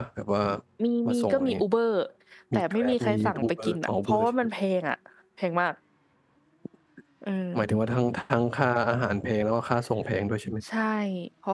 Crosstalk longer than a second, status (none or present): present